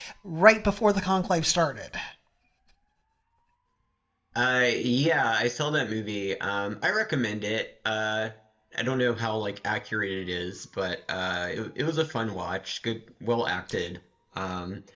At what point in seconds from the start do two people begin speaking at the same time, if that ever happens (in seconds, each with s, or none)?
none